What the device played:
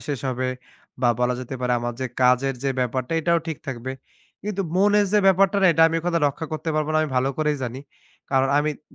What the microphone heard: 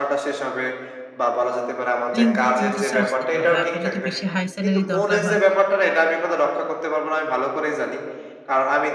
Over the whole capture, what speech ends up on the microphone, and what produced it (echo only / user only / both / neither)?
both